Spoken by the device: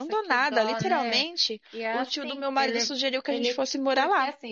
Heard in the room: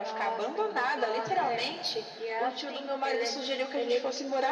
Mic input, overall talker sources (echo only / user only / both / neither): echo only